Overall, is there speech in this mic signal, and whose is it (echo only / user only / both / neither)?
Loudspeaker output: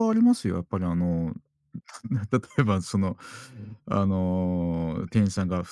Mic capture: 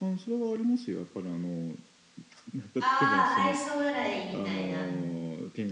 both